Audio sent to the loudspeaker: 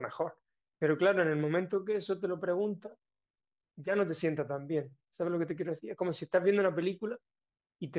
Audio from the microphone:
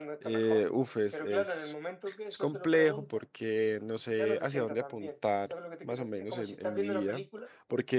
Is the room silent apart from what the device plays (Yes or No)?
No